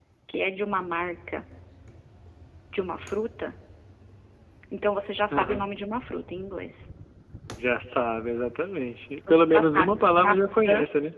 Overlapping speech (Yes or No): Yes